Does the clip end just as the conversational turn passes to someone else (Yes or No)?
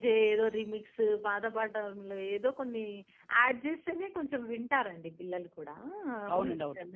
Yes